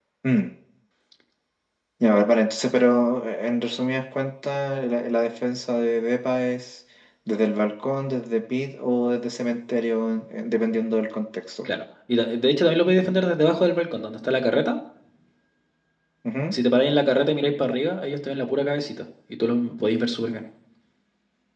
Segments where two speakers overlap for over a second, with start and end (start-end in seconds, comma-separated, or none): none